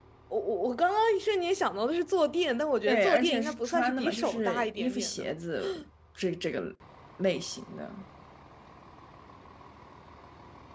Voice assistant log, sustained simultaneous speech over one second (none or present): present